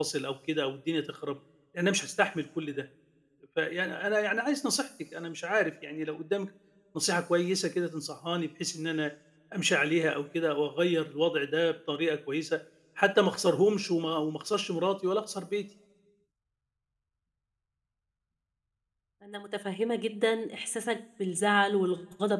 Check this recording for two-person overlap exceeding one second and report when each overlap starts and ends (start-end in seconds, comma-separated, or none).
none